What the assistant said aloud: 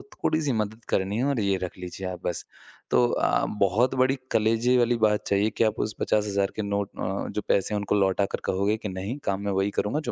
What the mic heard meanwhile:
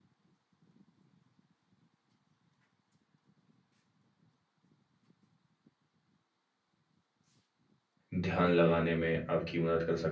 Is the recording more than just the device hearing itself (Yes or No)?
Yes